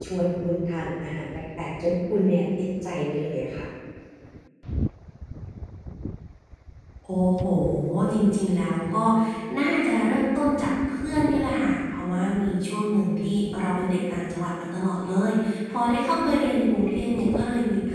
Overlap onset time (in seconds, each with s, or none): none